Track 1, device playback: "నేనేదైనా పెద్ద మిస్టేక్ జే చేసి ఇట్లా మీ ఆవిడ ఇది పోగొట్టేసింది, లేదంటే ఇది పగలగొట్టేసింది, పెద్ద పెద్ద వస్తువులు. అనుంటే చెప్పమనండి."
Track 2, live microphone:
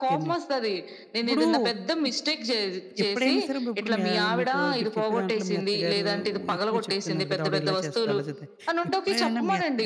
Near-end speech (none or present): present